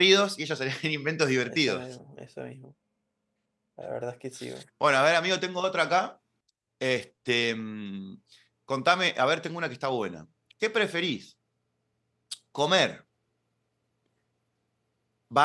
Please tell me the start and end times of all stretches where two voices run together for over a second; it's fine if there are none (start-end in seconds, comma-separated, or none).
none